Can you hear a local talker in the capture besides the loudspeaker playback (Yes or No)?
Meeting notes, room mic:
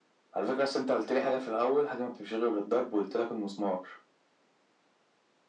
No